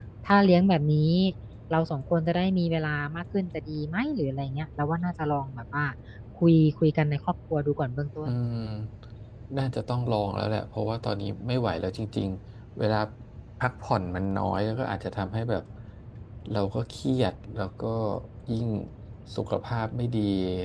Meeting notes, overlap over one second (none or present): none